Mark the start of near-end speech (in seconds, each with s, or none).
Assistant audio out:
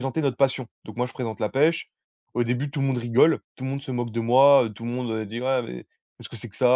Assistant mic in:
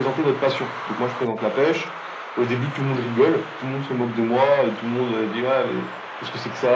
none